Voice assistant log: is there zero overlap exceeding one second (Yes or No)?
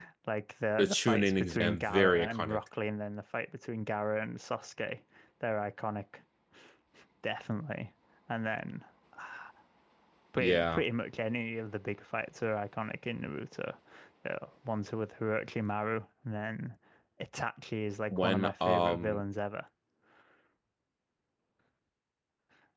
No